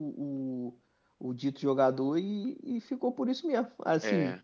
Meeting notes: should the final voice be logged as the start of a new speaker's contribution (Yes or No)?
No